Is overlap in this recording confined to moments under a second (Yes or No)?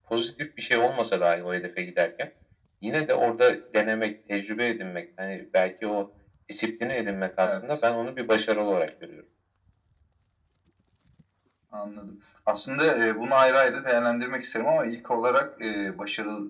Yes